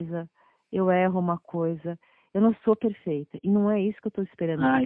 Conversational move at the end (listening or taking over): taking over